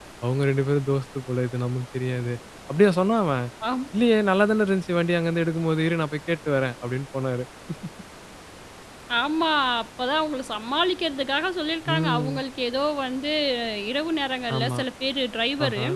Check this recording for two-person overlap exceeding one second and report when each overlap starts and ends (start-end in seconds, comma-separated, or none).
none